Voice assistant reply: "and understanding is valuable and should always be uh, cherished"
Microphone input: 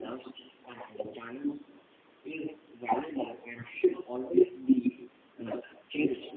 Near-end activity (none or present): none